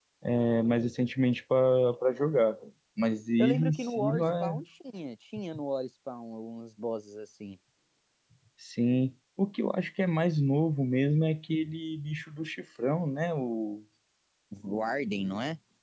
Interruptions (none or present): present